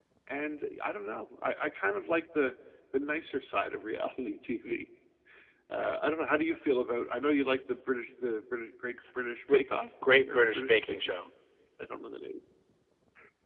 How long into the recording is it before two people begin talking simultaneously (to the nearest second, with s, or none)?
9 s